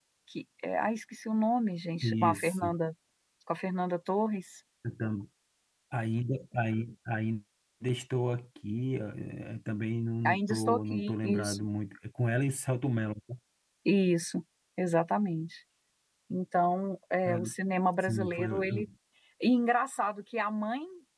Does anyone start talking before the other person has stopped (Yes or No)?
Yes